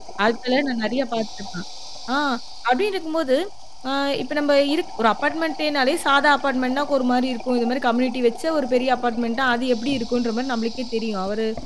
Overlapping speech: No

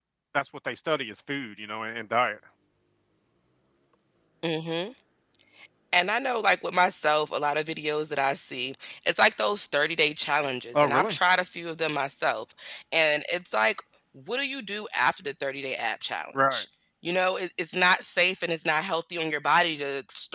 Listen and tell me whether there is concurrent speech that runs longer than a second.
No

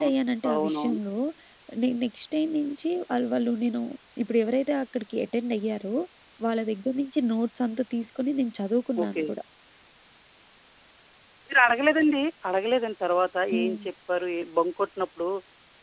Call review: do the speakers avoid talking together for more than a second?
Yes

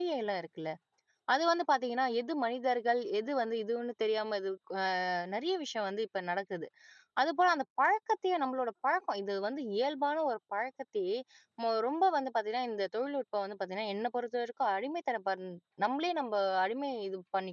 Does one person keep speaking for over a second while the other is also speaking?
No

